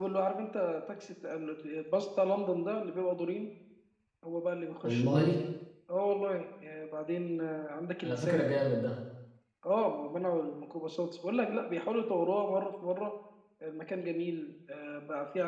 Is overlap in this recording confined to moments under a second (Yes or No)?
Yes